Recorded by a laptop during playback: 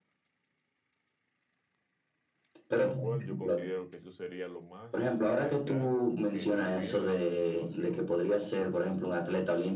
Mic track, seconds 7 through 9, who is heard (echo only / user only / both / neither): both